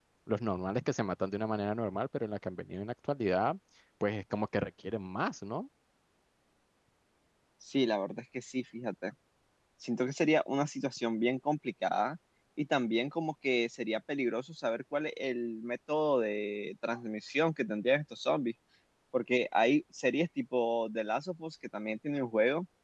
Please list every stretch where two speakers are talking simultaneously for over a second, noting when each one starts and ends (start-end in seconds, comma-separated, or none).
none